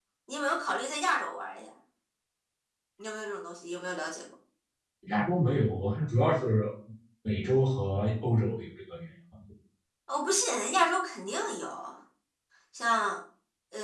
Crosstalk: none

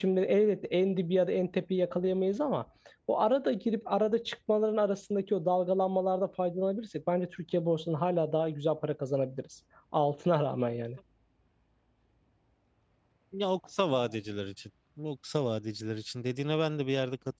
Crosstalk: none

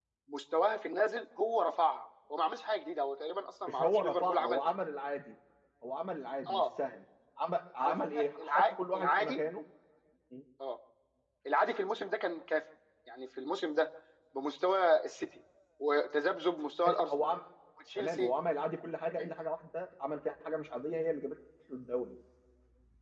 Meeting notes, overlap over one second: present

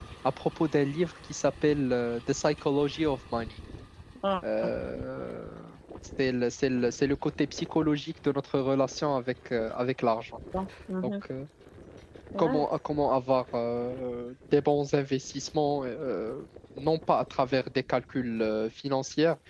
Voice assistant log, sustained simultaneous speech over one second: none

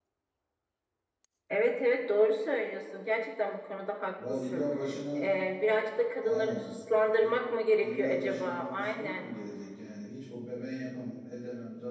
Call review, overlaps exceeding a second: present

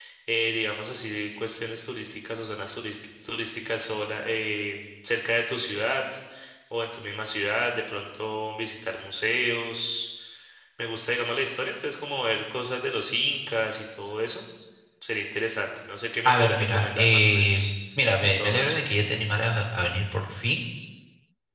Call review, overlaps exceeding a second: present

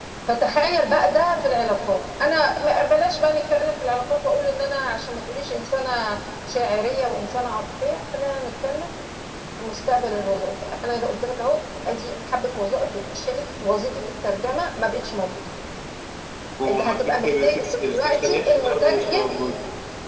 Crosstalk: present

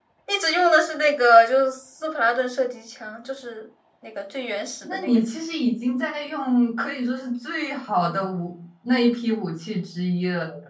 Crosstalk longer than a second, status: none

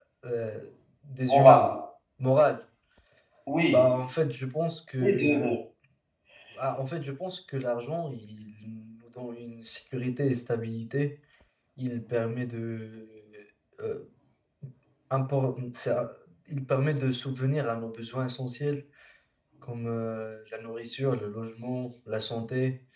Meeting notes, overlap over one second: none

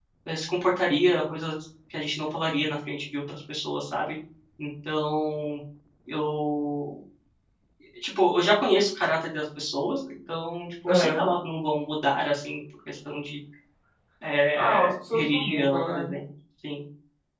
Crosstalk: present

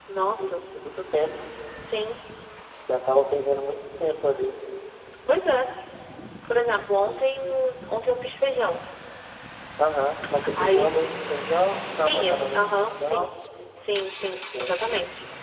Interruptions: present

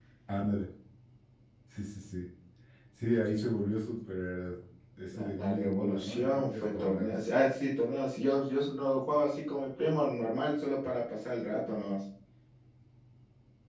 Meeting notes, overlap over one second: present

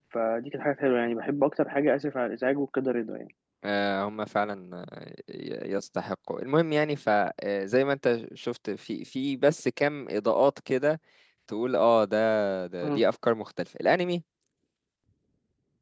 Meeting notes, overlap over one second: none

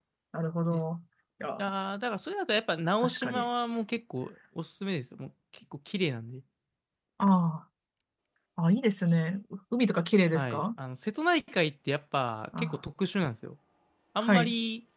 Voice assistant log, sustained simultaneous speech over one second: none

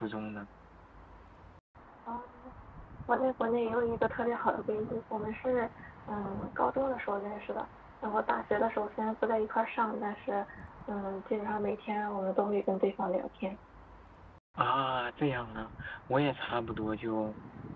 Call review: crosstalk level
none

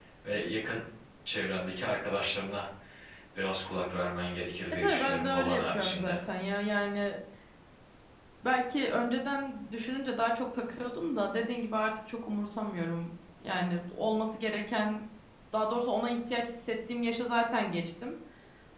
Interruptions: present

